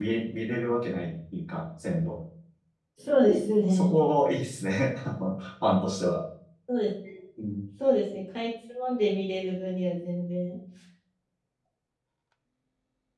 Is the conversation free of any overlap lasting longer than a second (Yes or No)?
Yes